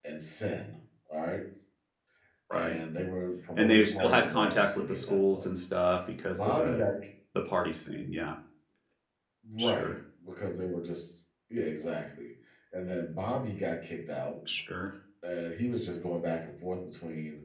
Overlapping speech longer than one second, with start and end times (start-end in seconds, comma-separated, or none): 3.5-5.5